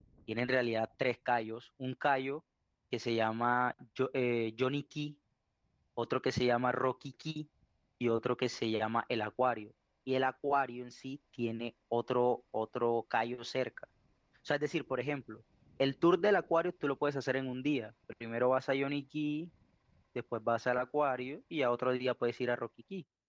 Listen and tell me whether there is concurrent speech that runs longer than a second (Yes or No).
No